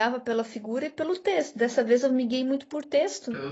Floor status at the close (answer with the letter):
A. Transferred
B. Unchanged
B